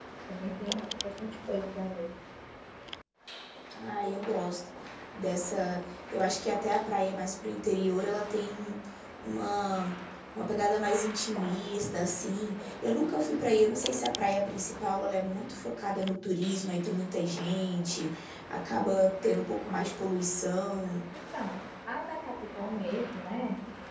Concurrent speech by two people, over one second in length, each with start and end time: none

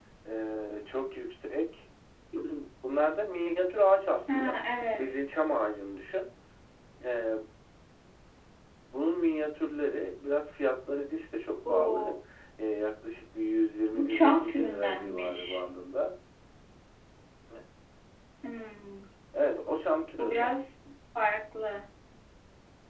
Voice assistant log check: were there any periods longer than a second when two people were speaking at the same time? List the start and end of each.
13.9-15.6

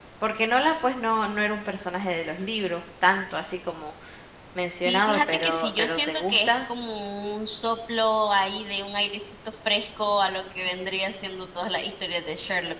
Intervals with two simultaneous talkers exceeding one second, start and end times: 4.8-6.5

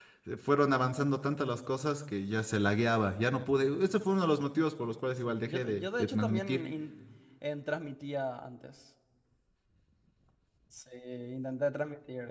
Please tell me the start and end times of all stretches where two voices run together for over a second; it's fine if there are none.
5.2-6.6

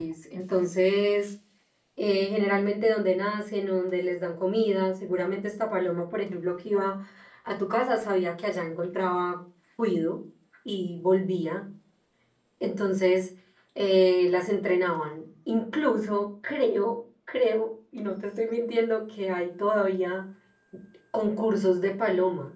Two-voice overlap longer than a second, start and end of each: none

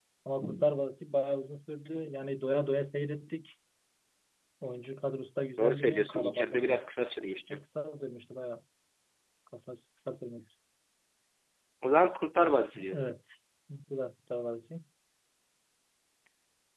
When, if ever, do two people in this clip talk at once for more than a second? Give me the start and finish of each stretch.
5.6-6.8

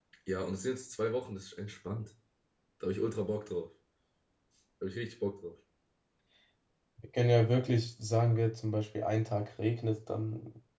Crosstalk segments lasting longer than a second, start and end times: none

